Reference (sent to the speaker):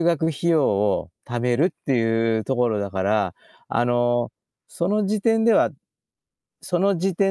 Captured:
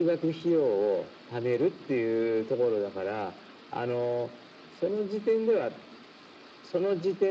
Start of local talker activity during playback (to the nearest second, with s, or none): none